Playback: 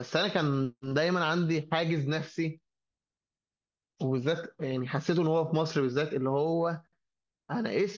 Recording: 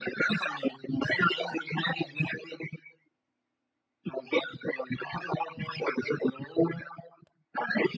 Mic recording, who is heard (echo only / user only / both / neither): echo only